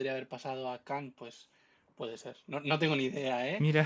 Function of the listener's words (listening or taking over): listening